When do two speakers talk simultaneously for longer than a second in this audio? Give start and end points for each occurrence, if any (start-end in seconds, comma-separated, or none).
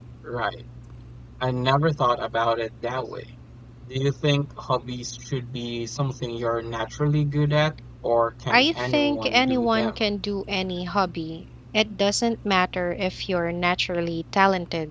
8.5-10.0